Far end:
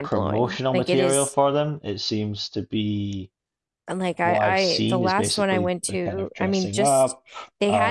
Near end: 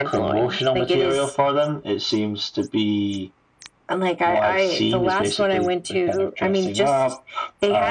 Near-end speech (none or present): none